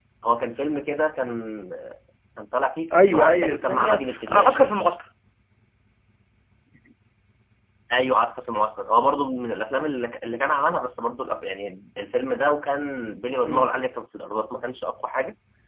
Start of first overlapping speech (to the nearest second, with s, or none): 3 s